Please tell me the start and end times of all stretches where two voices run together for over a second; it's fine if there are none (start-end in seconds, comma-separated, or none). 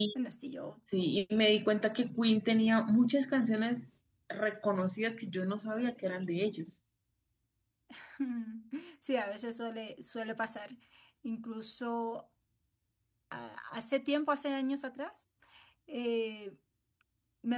none